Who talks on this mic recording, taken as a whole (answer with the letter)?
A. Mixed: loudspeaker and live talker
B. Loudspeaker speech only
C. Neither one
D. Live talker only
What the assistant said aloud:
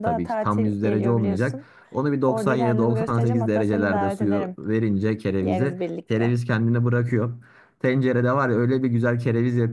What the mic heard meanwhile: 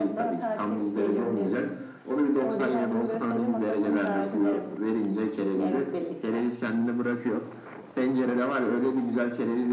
B